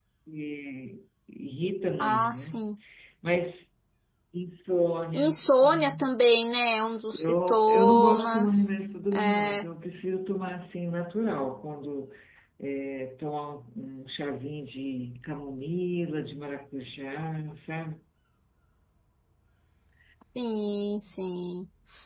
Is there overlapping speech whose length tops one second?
Yes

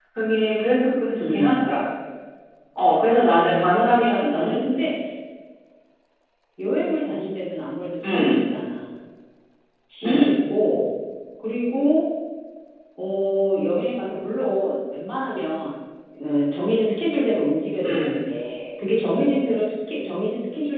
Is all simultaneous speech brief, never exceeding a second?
No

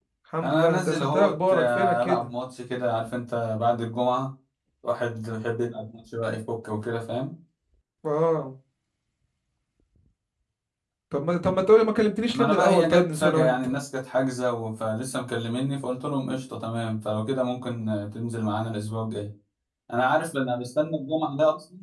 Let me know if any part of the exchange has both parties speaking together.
Yes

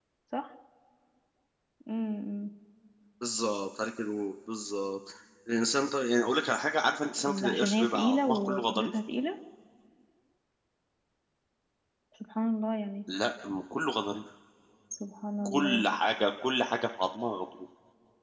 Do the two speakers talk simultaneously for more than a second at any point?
Yes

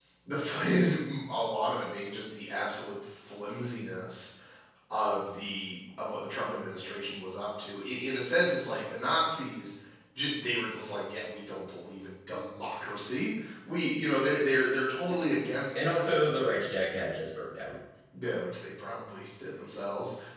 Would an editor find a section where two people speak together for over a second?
No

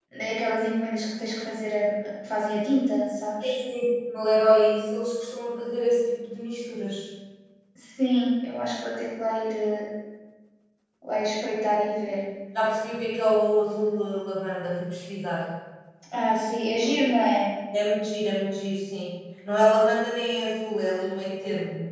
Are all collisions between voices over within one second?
Yes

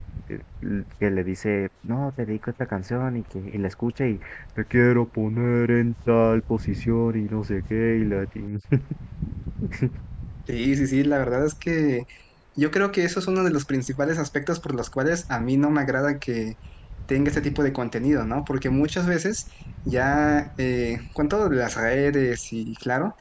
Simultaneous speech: No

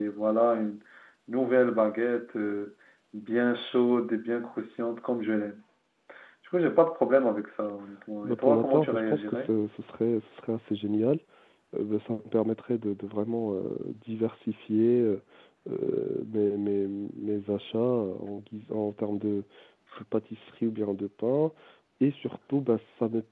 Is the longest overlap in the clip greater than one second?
Yes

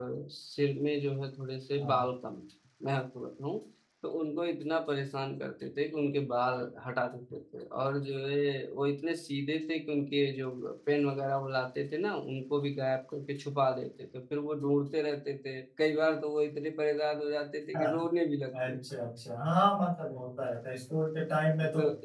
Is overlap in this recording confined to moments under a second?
Yes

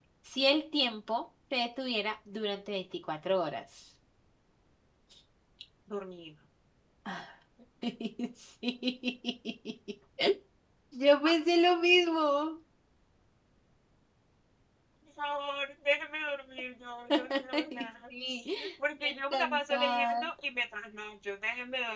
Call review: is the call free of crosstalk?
No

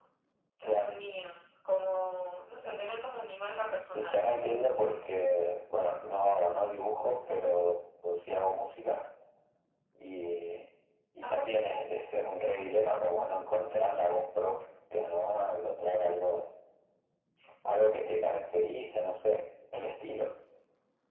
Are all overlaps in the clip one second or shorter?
No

